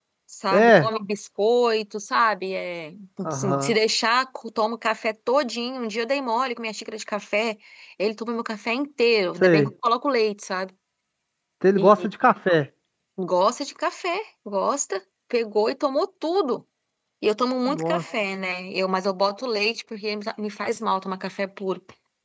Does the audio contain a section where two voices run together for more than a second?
No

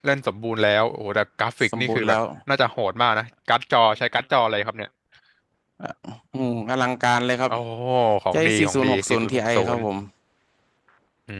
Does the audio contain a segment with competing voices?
Yes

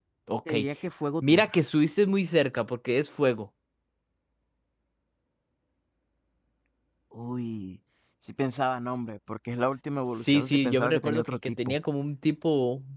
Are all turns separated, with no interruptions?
No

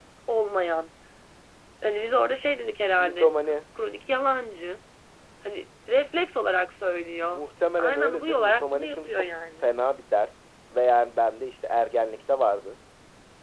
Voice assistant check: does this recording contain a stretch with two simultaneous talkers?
Yes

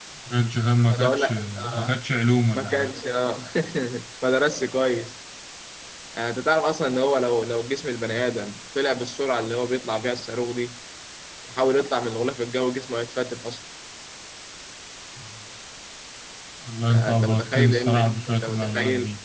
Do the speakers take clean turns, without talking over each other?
No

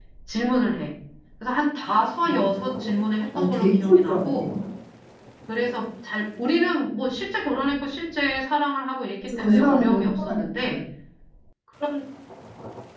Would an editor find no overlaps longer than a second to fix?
No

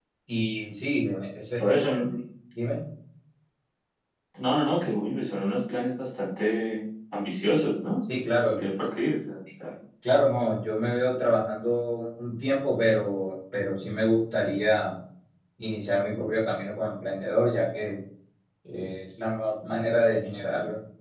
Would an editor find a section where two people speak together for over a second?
No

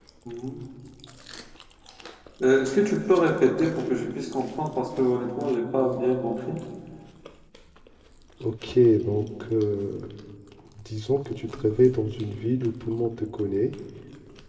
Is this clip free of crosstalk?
Yes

